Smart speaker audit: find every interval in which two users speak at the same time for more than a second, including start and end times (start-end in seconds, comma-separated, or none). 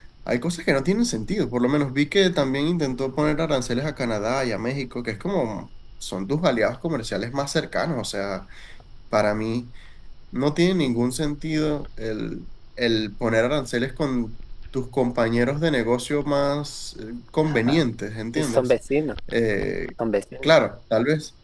none